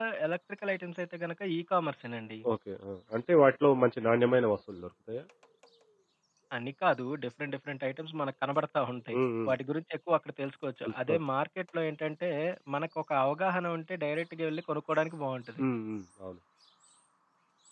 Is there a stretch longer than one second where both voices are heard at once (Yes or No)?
No